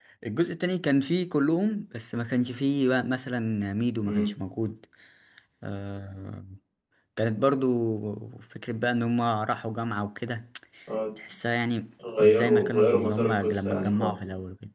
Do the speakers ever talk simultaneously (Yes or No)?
Yes